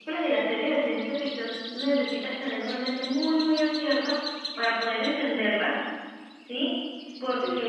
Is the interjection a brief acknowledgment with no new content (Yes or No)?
Yes